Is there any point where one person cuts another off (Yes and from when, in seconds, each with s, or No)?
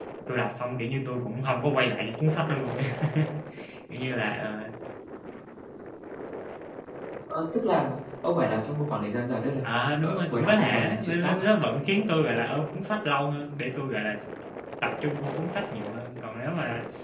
Yes, from 10.0 s